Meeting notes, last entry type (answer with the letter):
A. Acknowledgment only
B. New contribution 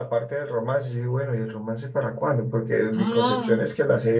A